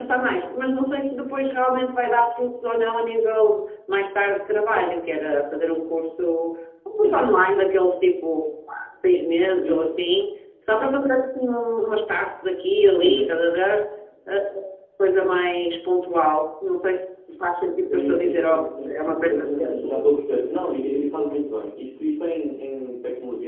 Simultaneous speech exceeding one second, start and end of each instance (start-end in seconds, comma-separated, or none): 17.9-19.8